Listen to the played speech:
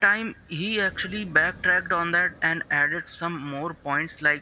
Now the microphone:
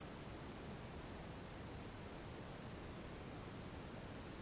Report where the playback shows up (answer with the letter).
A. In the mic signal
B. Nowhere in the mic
B